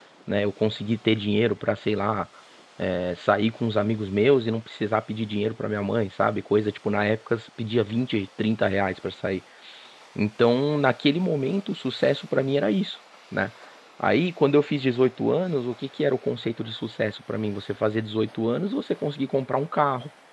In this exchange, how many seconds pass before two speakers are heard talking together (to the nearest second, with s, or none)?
none